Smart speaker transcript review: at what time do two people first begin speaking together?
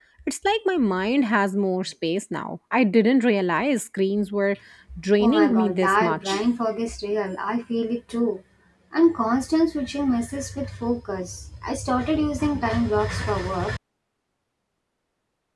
5.2 s

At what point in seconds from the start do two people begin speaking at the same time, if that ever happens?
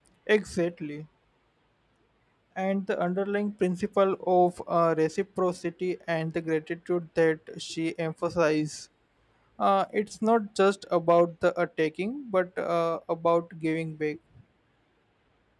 none

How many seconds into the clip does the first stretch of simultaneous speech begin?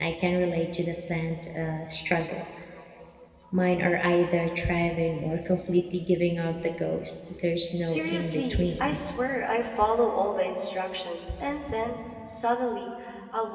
7.7 s

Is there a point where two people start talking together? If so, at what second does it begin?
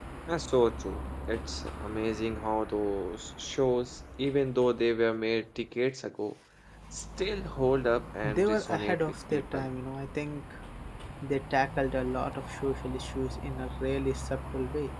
8.2 s

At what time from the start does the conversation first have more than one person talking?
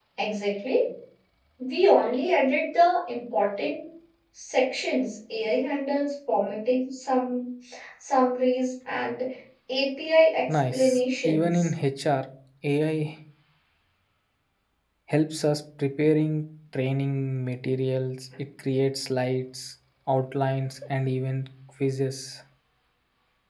10.5 s

